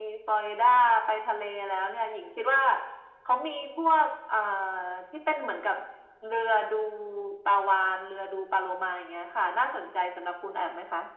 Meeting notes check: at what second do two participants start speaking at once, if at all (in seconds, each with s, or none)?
none